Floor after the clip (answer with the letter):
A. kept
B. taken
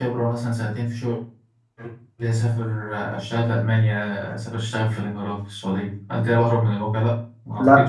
B